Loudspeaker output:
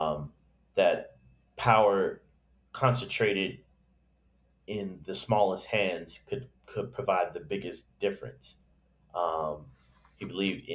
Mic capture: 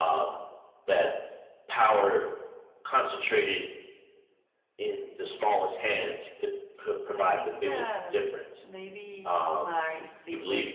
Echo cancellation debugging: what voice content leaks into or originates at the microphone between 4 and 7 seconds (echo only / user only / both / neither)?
echo only